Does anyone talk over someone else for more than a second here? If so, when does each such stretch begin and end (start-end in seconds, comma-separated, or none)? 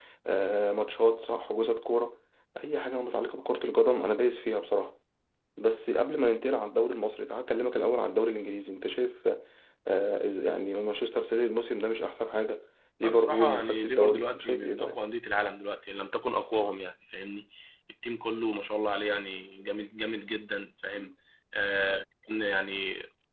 13.0-15.0